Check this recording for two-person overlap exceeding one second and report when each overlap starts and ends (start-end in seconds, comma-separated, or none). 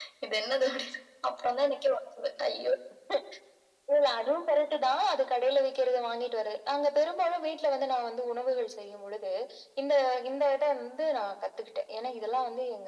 none